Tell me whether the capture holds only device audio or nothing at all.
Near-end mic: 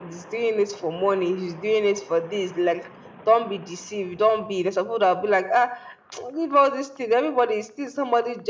Yes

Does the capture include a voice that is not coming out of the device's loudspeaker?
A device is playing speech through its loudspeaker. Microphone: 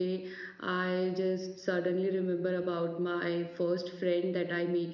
Yes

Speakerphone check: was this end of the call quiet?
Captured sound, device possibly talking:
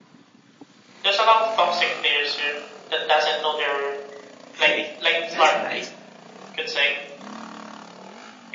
No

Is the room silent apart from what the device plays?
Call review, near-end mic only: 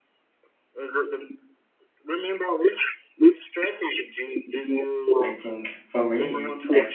No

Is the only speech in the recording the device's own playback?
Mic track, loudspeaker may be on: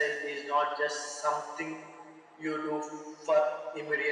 Yes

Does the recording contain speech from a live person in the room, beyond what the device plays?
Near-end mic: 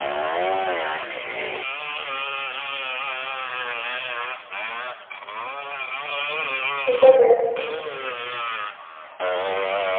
Yes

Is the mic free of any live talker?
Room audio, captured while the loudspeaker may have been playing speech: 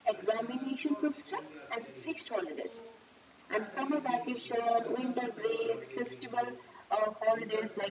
No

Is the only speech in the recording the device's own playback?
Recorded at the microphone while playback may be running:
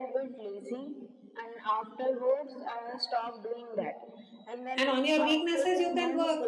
No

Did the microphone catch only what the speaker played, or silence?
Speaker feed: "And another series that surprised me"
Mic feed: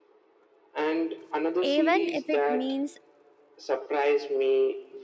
No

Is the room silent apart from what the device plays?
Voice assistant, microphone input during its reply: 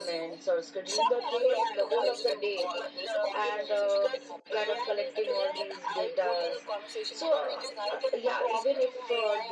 No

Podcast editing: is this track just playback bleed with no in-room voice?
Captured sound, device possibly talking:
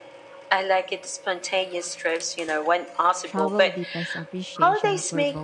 No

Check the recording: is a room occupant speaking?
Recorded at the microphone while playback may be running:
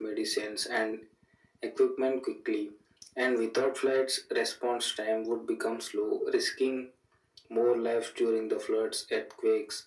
No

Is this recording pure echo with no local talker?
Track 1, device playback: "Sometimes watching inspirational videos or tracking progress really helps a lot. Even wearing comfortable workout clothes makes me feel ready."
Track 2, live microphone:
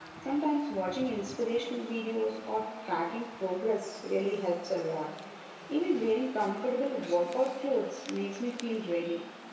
Yes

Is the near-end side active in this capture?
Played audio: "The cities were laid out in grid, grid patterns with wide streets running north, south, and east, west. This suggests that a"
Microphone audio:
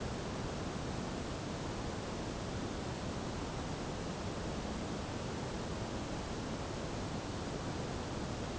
No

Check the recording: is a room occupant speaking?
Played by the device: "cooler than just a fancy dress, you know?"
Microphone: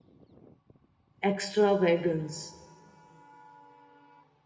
Yes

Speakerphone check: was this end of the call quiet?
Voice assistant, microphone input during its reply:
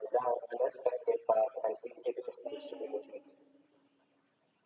No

